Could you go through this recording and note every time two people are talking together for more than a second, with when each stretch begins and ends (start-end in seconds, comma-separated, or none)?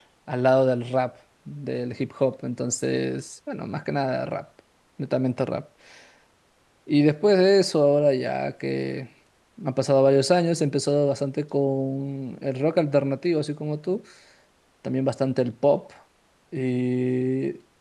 none